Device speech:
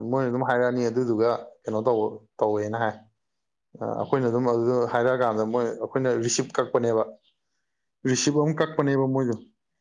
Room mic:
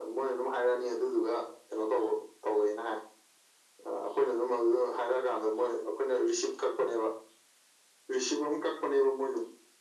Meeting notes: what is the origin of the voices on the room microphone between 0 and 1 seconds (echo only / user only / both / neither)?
echo only